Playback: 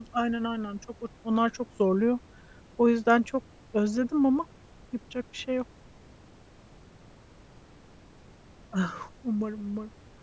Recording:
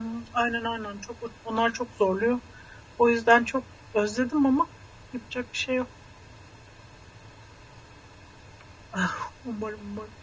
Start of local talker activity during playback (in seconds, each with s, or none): none